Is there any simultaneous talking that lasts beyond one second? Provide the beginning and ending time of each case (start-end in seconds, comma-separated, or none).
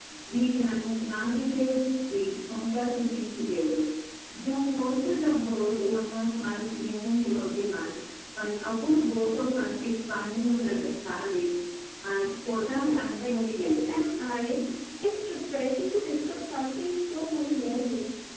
12.7-14.0